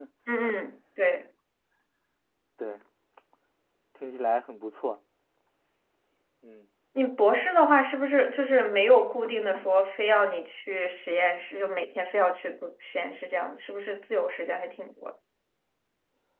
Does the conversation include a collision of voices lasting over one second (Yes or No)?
No